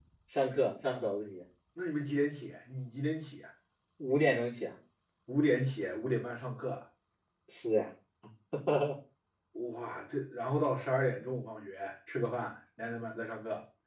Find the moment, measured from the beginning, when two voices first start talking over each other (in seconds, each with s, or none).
none